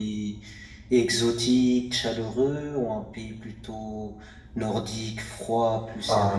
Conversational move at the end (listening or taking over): taking over